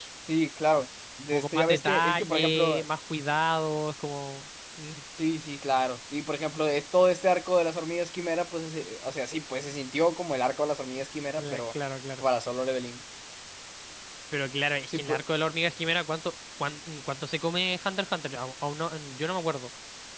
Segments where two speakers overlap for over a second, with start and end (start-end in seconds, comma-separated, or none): 1.3-2.8